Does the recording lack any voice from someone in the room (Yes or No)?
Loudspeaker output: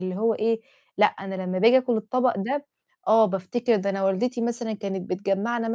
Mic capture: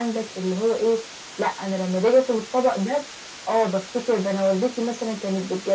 Yes